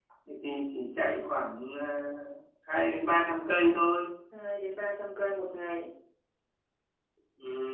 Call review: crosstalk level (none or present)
none